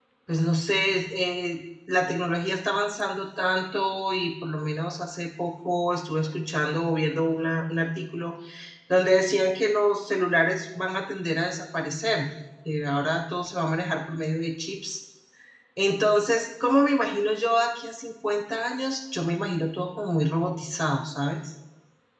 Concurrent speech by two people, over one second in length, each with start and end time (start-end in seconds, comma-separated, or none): none